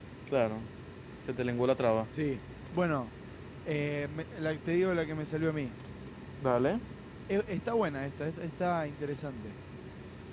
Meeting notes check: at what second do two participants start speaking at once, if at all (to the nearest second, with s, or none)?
none